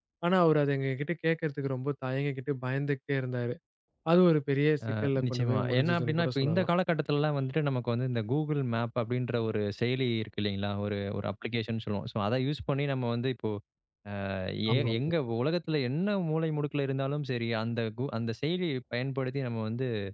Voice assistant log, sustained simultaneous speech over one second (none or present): present